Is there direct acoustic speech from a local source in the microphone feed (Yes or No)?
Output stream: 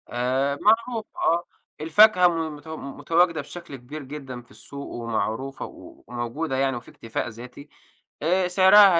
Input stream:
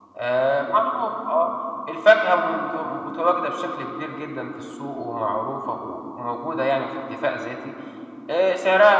No